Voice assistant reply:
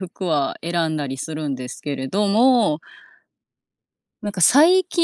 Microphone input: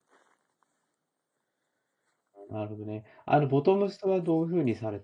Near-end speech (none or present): present